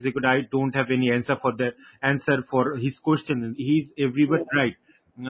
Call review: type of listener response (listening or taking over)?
listening